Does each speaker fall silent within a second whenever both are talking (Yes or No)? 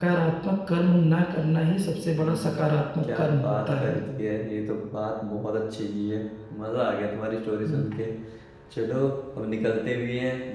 No